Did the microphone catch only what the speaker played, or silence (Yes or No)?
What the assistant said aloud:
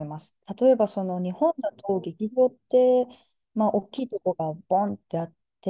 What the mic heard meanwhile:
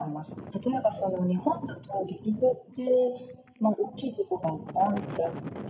Yes